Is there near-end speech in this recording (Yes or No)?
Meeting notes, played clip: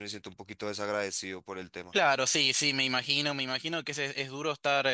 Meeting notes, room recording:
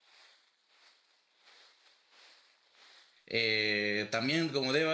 Yes